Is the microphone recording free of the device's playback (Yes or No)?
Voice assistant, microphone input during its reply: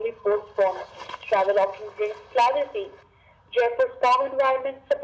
No